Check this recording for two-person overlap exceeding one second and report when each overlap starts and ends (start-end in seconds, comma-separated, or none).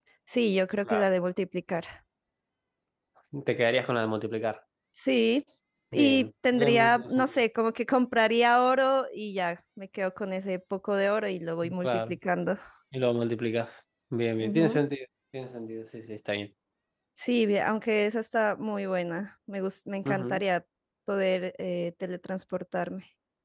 5.9-7.4